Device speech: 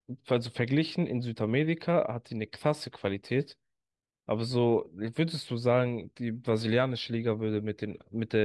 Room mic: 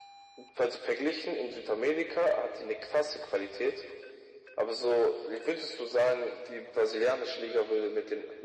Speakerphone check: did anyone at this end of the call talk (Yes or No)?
No